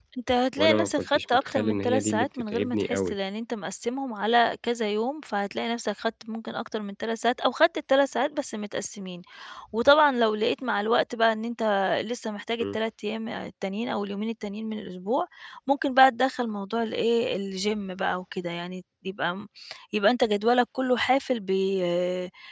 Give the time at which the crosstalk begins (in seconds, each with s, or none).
0.6 s